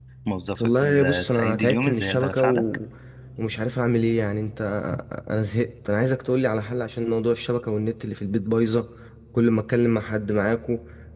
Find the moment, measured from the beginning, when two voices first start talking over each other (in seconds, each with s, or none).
0.6 s